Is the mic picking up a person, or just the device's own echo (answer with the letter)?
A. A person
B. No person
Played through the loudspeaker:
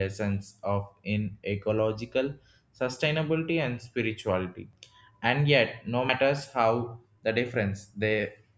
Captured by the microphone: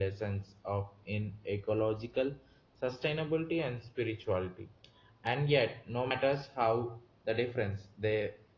B